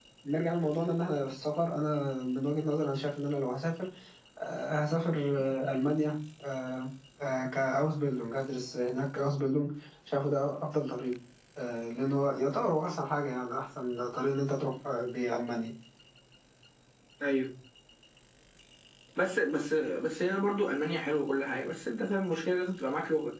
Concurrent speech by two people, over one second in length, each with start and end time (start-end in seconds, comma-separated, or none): none